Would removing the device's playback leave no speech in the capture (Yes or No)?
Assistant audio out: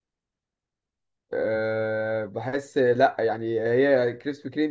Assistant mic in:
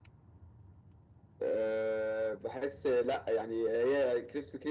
Yes